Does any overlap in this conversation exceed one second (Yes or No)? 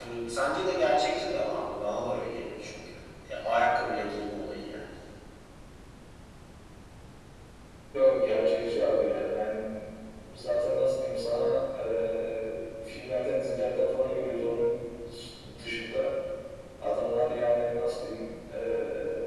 No